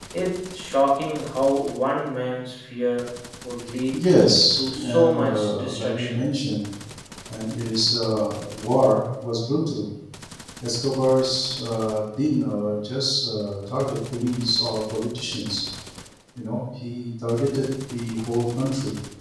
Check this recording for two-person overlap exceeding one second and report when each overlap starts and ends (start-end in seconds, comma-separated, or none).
4.5-6.2